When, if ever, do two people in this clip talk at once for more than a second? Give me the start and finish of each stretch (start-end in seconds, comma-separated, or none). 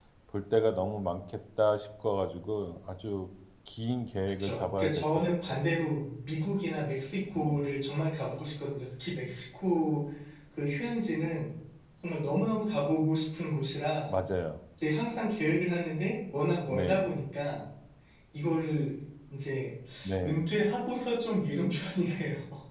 4.4-5.6